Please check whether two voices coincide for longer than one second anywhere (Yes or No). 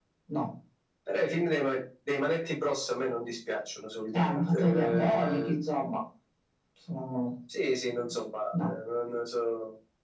Yes